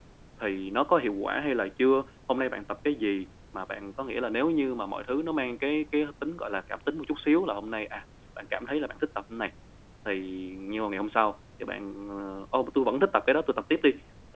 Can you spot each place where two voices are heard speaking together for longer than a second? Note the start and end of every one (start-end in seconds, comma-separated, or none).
none